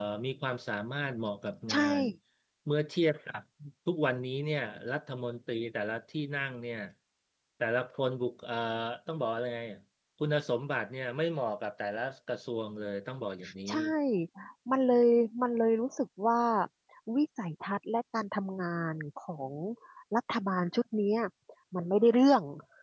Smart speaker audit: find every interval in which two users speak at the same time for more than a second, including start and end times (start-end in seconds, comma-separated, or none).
none